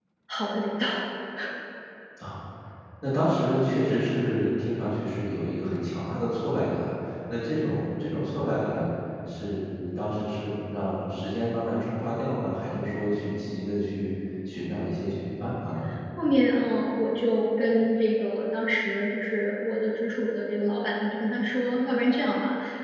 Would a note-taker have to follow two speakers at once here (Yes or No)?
No